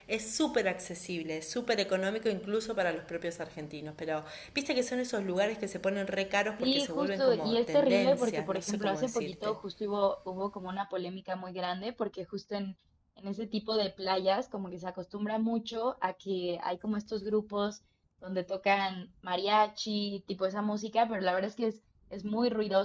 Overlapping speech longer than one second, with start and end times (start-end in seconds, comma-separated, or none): 6.6-9.6